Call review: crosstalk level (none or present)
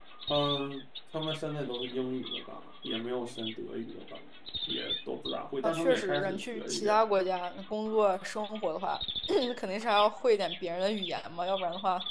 present